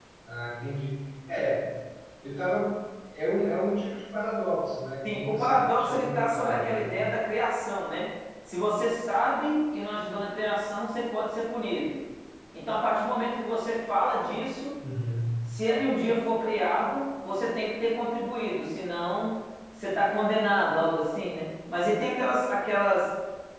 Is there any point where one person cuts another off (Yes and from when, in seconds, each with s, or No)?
Yes, from 5.0 s